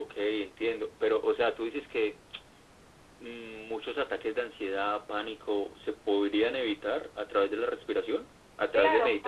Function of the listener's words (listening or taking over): taking over